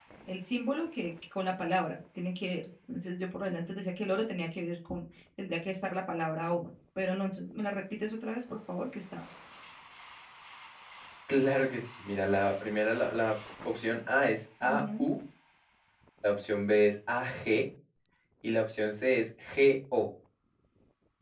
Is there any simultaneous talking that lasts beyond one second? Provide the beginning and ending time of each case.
none

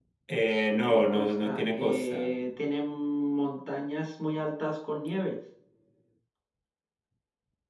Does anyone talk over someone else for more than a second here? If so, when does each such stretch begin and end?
0.7-2.3

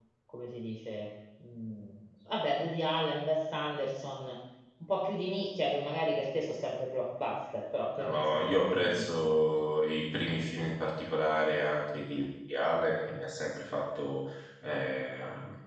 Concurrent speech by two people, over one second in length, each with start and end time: 8.0-9.4

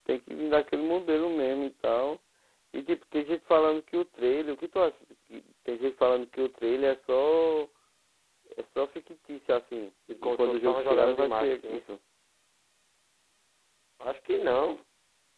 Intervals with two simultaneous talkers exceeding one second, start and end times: 10.2-11.8

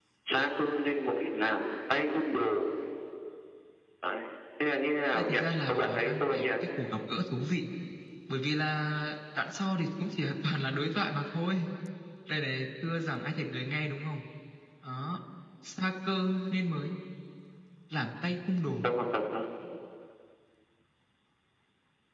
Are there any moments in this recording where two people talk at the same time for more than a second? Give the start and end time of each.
5.1-6.6

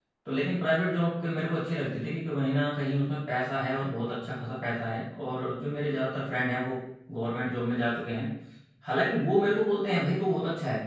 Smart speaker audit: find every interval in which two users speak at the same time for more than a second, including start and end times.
none

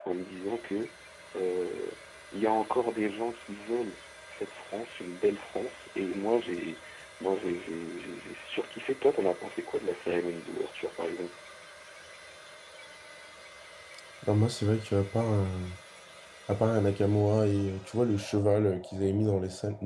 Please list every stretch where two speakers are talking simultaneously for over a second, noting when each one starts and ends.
none

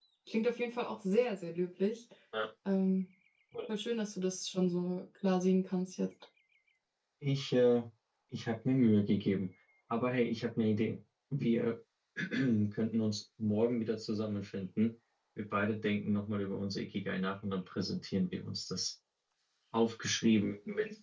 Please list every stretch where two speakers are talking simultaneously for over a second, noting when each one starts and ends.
none

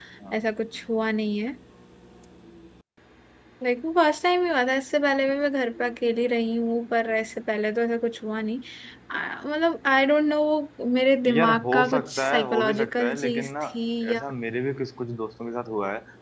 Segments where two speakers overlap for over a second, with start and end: 11.2-13.5

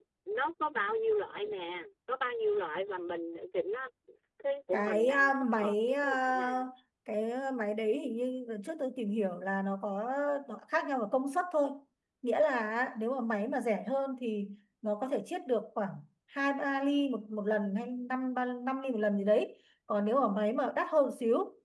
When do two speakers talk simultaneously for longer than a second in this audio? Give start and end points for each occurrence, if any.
4.7-6.7

